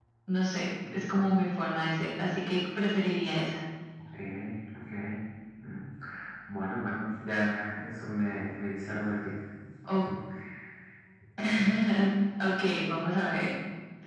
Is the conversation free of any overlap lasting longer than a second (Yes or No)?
Yes